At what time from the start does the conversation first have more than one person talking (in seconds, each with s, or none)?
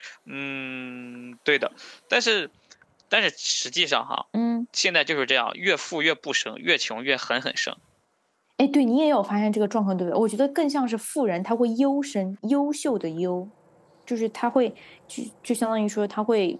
none